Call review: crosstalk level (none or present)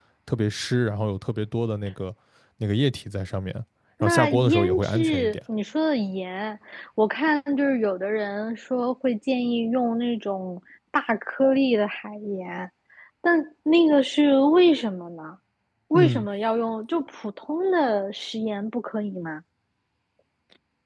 present